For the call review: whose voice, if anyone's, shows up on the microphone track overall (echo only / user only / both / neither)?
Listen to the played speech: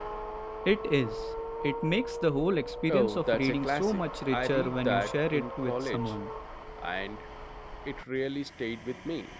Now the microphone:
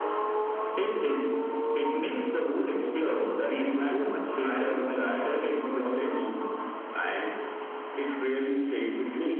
echo only